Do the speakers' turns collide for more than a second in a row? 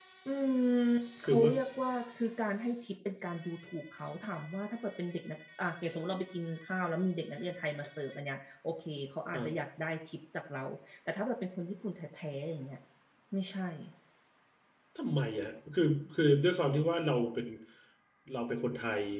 No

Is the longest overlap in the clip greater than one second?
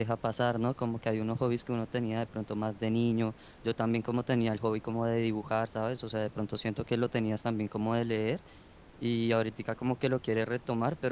No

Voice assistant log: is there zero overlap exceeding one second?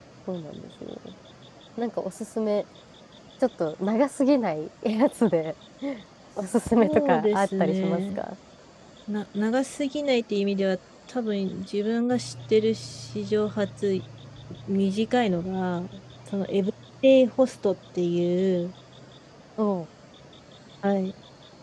No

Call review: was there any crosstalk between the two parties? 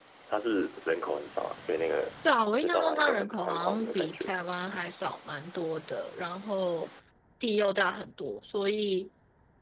Yes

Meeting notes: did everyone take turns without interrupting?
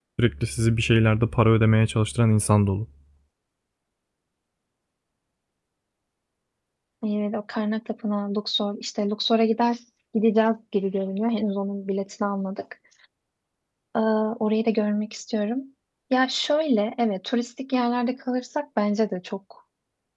Yes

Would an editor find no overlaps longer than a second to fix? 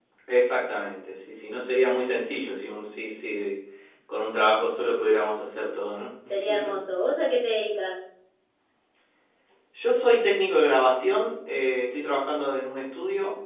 Yes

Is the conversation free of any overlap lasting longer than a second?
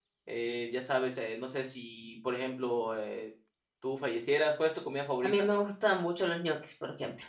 Yes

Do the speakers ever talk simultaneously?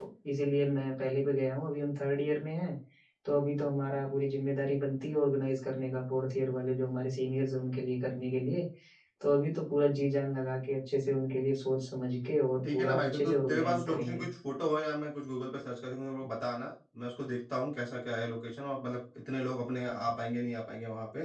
Yes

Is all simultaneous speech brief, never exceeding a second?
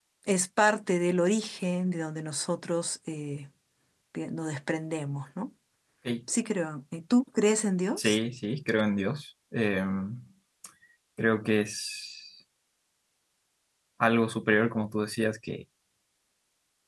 Yes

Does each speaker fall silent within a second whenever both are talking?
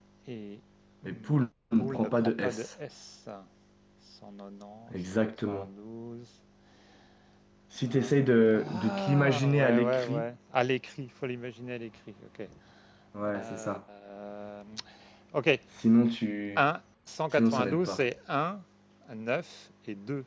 No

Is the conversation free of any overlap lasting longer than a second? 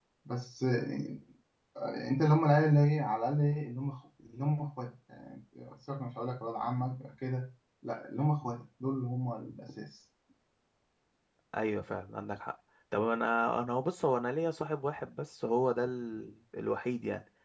Yes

